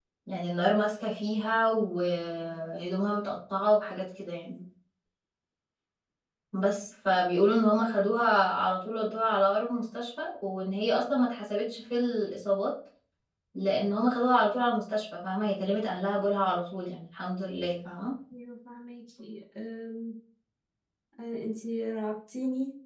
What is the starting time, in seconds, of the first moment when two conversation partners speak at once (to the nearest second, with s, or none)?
none